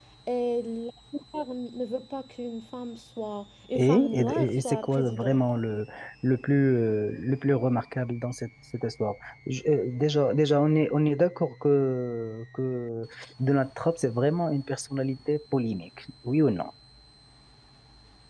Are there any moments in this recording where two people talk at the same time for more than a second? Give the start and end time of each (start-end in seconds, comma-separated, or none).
3.8-5.4